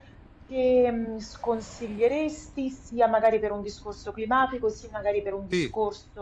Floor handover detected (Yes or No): No